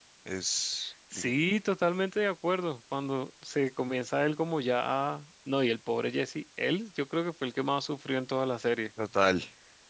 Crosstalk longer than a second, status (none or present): none